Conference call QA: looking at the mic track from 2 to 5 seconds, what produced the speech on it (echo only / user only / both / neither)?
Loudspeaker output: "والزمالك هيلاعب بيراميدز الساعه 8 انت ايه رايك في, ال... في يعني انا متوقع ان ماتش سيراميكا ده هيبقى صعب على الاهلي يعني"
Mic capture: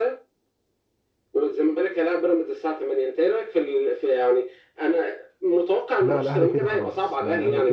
echo only